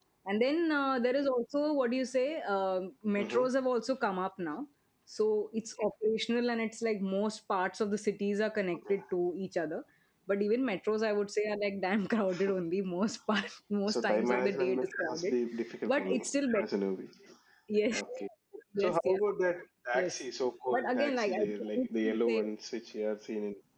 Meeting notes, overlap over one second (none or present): present